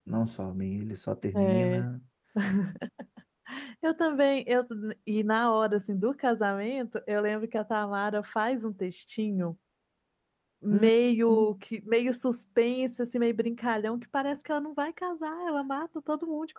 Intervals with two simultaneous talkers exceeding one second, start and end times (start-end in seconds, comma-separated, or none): none